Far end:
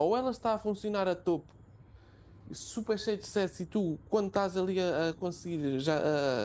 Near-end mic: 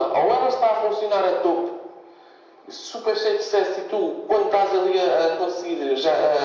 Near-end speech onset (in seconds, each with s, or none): none